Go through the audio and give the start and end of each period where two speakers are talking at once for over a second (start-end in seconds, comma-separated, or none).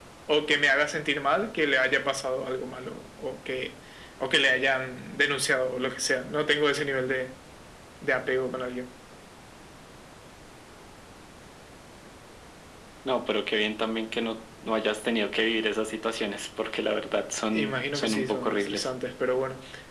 17.5-18.9